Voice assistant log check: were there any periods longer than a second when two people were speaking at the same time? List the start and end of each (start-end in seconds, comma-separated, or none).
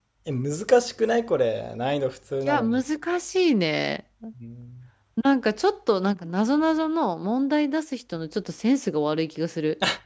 none